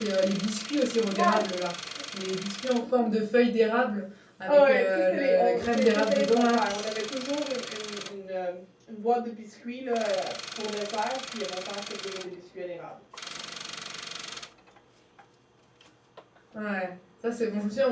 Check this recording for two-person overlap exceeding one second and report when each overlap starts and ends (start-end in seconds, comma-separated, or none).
4.5-7.0